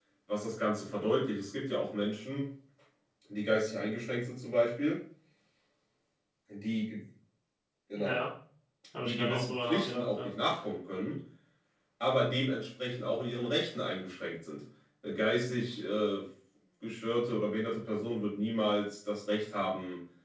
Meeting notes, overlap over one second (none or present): present